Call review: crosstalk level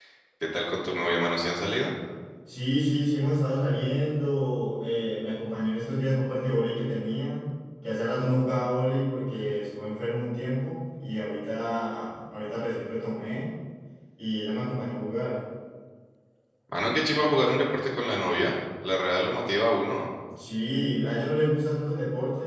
none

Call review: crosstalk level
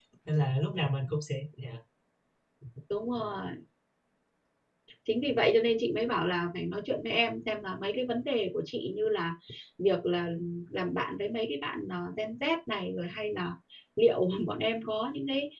none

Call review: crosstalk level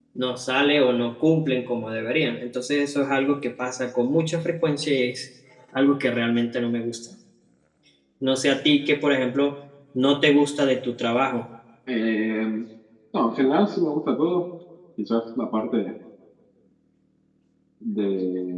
none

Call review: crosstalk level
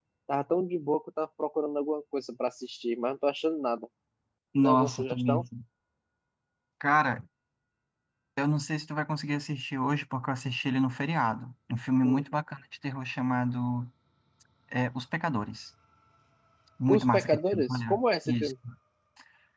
present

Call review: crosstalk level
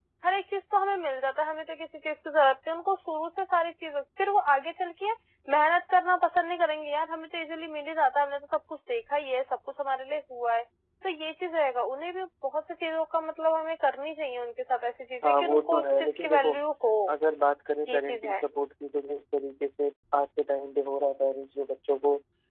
present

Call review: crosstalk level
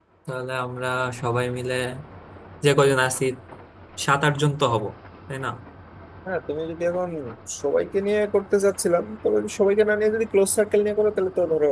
none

